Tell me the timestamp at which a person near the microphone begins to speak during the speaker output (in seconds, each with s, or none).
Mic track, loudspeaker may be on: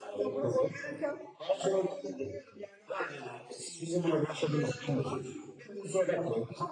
none